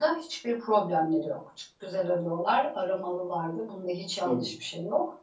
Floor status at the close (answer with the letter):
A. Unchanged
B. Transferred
A